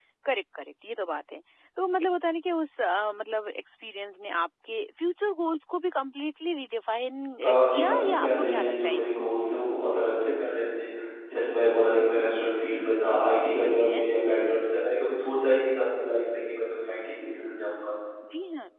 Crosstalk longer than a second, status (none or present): present